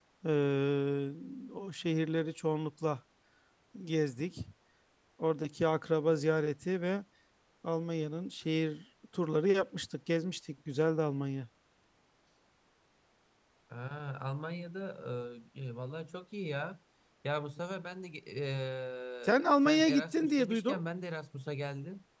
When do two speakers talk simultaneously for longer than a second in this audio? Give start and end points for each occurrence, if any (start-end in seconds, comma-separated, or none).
19.2-20.8